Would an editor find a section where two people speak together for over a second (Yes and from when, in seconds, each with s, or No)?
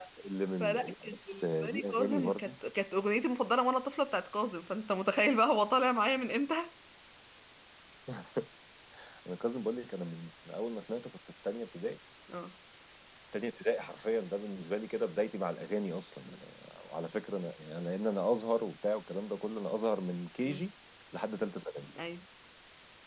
Yes, from 0.6 s